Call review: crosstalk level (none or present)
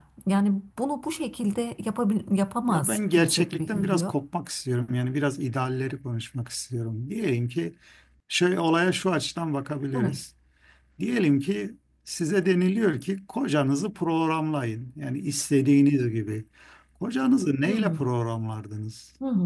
present